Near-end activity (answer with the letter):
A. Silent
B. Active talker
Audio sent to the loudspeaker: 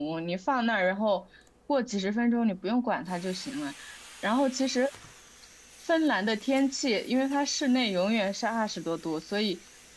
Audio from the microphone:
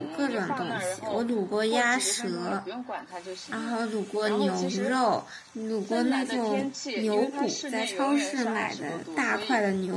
B